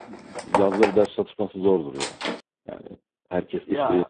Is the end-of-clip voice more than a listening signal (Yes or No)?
No